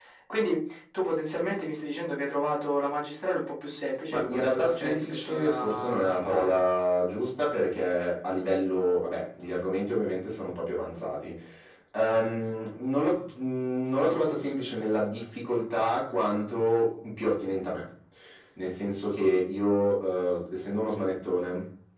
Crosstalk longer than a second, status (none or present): present